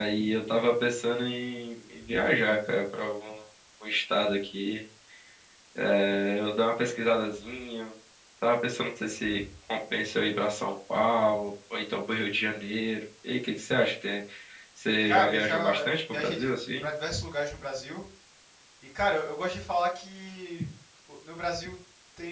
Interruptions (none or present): present